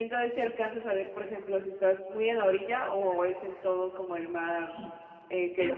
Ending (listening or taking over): taking over